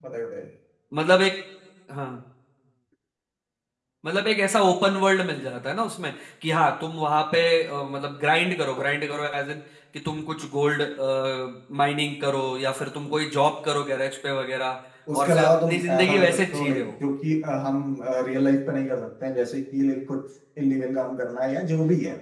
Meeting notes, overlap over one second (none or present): present